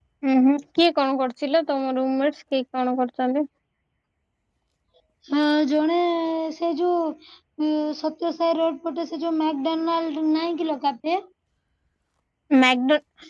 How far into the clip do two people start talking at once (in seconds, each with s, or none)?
none